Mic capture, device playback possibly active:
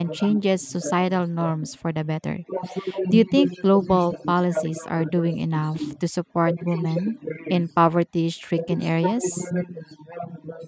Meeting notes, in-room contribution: present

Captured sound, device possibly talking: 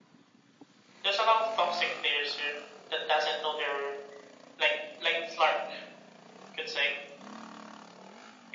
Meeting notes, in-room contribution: none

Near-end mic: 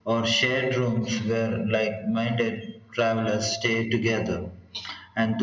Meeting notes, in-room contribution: none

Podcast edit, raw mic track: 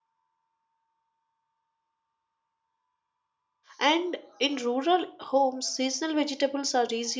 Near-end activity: present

